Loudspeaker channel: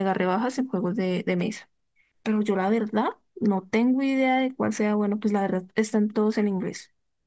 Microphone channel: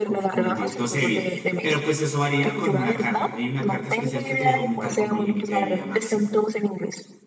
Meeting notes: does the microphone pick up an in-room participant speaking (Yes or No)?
Yes